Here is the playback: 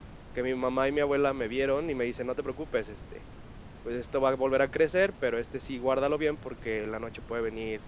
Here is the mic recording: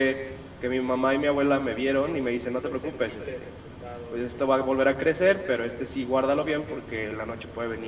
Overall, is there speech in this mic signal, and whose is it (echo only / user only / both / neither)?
both